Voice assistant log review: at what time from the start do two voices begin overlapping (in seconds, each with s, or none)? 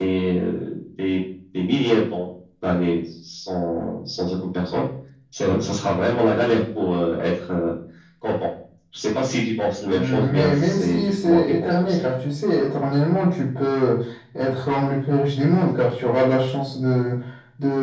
9.9 s